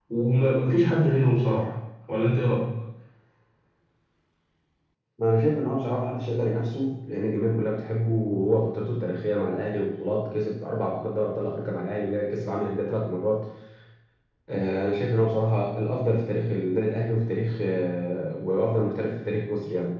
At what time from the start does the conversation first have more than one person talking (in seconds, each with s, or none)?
none